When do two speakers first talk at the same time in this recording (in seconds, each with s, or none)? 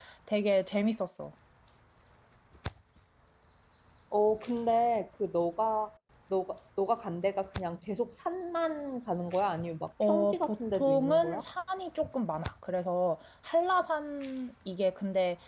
10.0 s